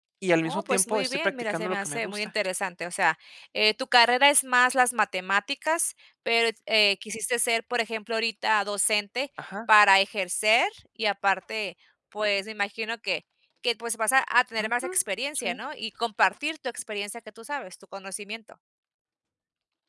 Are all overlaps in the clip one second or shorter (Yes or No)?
No